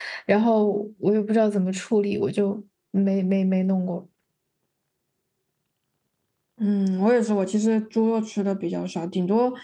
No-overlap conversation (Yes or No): Yes